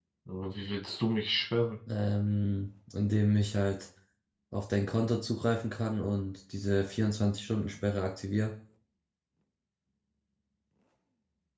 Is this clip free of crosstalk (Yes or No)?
Yes